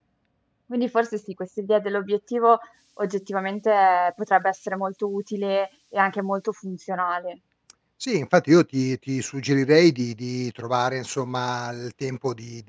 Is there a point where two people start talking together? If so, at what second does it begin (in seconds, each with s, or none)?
none